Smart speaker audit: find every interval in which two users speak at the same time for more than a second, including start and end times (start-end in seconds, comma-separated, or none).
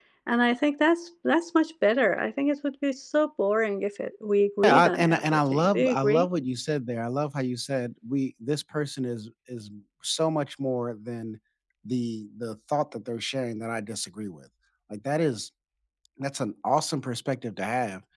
4.6-6.3